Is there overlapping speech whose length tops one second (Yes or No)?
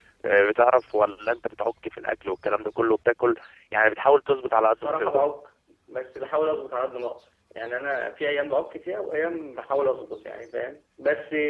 No